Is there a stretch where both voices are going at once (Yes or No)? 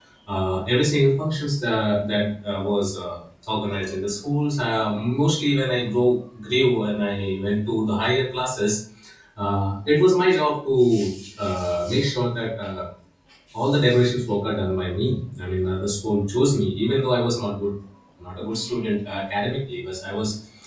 No